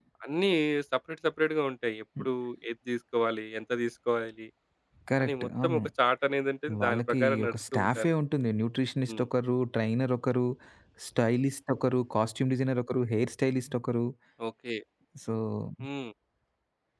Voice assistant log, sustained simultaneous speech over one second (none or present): present